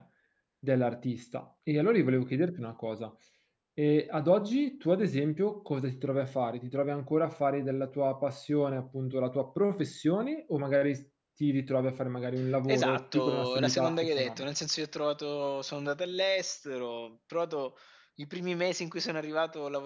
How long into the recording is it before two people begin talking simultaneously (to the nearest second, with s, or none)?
13 s